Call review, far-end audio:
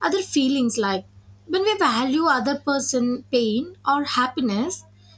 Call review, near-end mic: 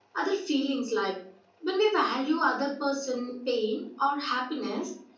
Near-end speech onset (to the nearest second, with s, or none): none